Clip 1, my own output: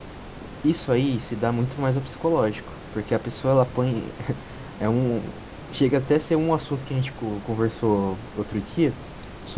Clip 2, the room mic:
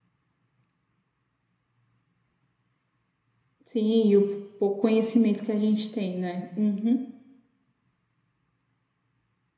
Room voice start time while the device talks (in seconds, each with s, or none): 3.6 s